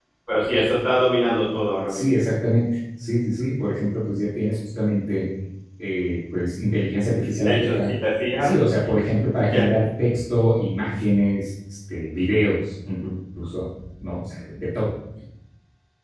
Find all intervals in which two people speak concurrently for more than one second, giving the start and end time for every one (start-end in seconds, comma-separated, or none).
none